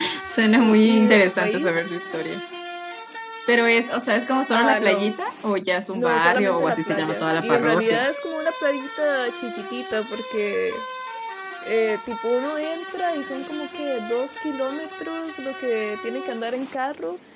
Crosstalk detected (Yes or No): Yes